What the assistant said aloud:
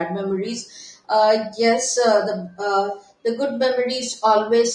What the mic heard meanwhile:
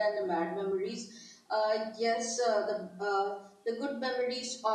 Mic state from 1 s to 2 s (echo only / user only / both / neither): echo only